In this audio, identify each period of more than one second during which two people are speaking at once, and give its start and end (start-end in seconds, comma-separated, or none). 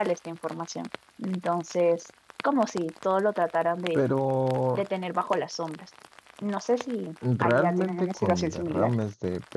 7.4-8.9